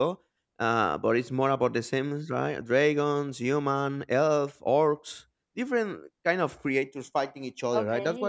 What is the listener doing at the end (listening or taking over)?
listening